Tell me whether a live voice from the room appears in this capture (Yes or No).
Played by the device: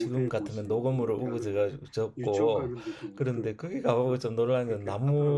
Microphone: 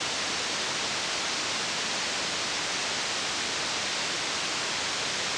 No